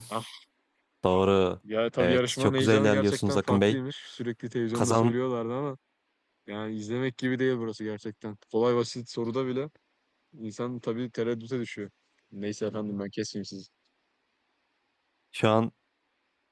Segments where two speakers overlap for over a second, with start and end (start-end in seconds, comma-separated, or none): 2.0-3.8